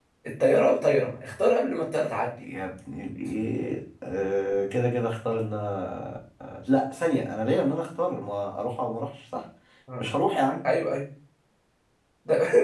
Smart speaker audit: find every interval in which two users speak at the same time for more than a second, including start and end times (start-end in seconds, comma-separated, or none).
none